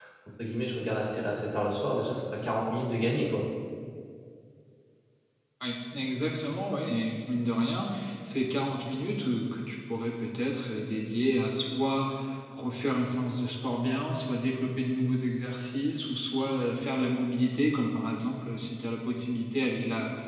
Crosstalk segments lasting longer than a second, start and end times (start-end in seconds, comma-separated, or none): none